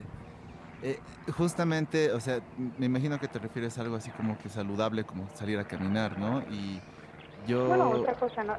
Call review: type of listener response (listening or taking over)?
taking over